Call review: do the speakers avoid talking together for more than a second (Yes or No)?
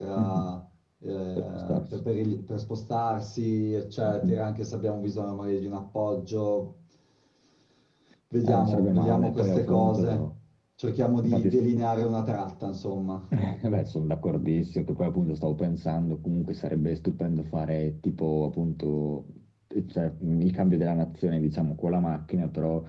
No